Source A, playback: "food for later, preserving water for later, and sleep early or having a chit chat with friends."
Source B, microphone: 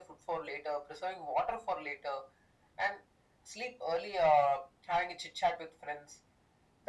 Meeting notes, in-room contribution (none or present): none